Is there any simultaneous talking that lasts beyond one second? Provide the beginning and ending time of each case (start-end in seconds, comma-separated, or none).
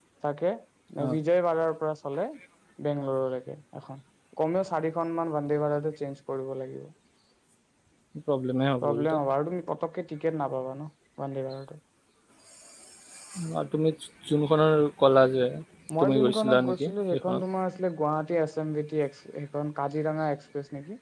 16.0-17.4